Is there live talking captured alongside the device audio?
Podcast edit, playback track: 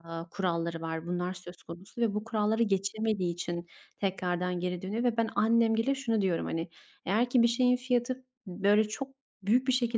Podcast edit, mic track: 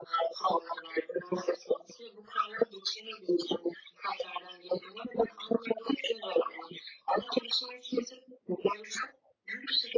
No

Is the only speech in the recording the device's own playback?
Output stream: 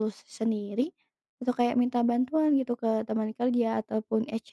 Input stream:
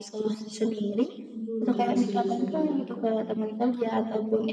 No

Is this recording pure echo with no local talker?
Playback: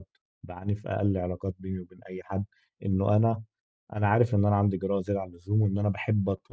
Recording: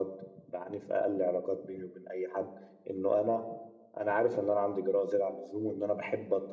Yes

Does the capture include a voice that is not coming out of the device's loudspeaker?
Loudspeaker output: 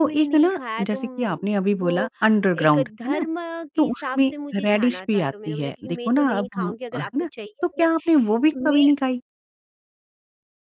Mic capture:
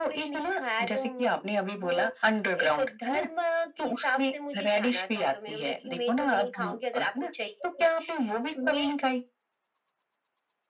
No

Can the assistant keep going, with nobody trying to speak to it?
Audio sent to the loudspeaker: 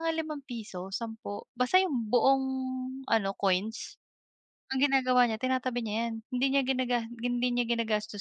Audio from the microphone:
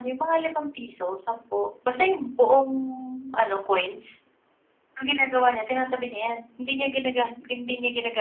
Yes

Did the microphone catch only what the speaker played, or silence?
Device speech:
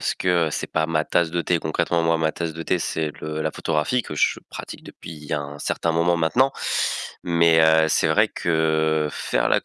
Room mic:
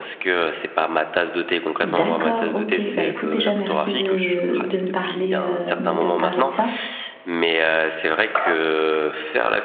No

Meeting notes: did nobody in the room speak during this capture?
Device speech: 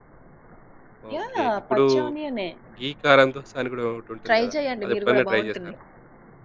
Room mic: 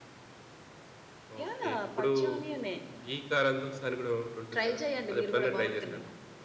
Yes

